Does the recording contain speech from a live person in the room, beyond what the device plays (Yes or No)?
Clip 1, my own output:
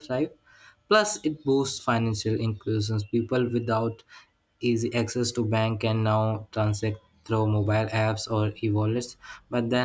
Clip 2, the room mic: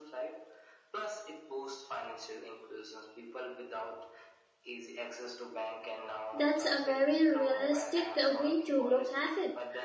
Yes